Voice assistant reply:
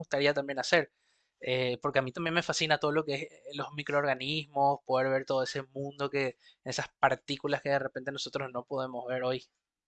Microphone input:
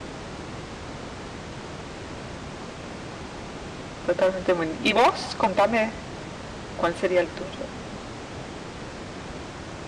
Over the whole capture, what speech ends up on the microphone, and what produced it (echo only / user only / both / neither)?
user only